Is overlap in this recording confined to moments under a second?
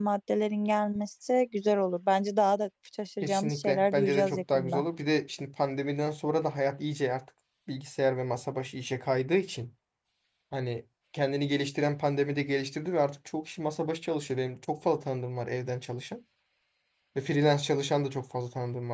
No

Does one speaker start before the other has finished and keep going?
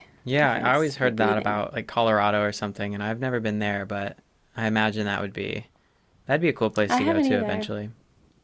Yes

